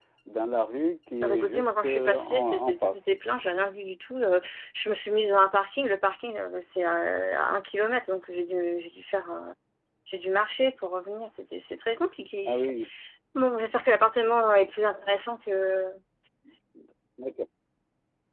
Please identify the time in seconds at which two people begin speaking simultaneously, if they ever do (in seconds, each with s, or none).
1.2 s